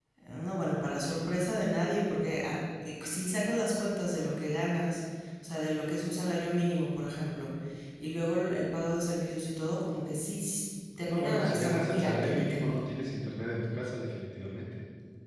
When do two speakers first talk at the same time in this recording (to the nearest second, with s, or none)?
11 s